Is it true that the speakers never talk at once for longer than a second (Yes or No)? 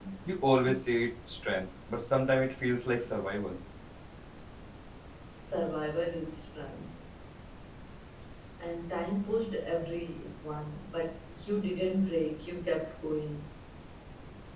Yes